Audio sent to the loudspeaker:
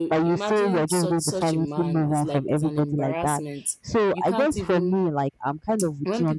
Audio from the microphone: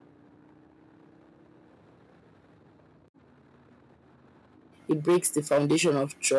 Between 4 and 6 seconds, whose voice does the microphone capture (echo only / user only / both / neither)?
user only